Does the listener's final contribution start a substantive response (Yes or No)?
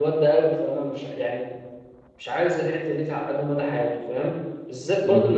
No